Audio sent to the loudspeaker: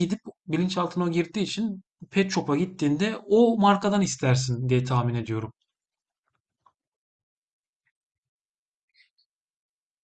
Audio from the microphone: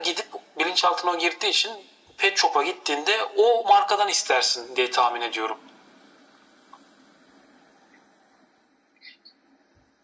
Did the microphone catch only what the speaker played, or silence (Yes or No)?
Yes